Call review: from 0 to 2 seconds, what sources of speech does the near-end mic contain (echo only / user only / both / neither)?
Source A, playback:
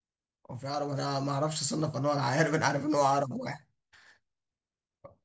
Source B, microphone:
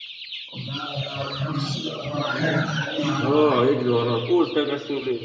echo only